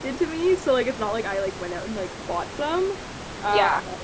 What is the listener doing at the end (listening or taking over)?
listening